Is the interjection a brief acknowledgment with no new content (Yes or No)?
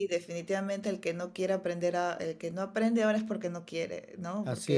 Yes